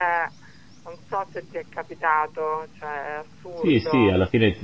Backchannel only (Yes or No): No